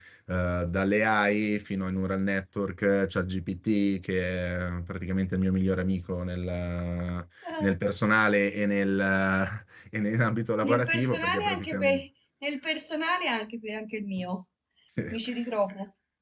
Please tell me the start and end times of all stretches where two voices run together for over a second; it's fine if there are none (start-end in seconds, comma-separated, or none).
10.6-12.0